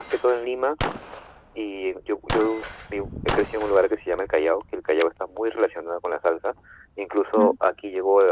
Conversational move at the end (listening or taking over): listening